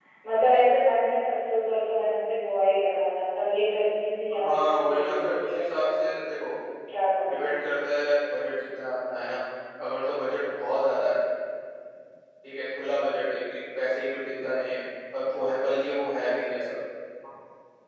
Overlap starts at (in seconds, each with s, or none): 4.4 s